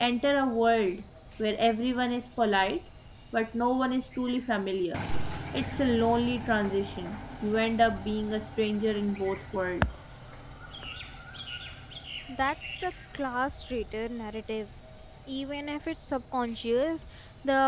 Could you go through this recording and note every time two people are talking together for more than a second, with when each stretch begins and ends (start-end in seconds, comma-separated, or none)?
none